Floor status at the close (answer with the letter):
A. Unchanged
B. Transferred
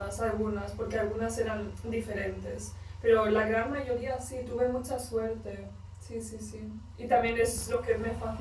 A